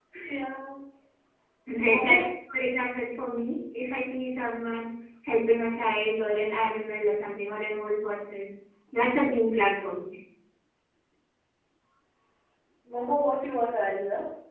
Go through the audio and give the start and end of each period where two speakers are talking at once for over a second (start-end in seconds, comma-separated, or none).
none